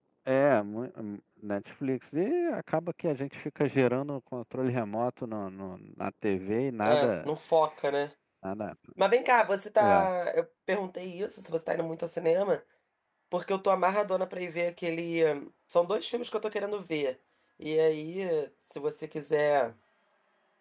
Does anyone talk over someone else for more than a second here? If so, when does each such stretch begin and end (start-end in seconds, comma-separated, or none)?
none